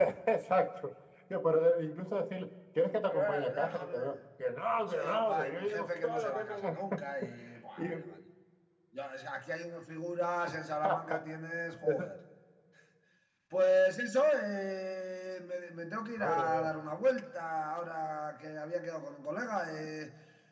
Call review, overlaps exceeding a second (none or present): present